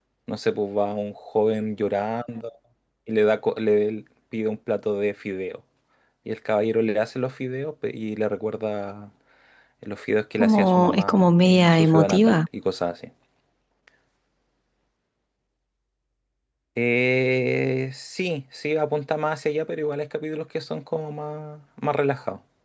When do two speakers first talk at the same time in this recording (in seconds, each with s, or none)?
10.4 s